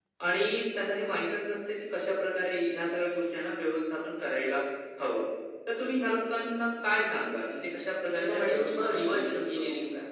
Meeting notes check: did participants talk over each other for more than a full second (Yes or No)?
Yes